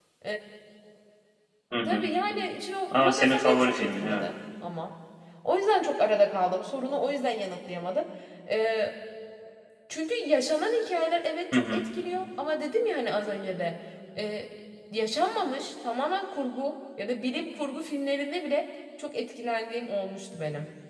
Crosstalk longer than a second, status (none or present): present